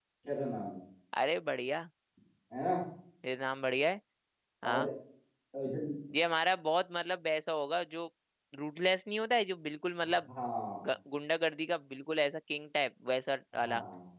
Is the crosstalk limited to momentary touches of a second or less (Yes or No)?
Yes